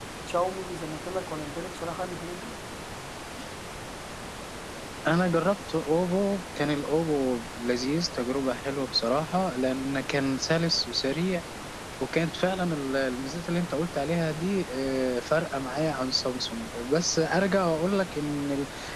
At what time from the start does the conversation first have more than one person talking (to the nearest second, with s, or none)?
none